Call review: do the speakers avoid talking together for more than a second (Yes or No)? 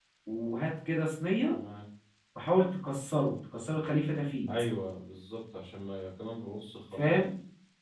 Yes